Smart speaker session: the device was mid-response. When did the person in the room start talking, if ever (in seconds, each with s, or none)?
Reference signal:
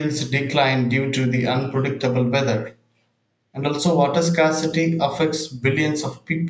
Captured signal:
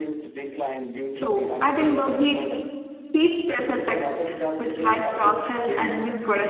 1.1 s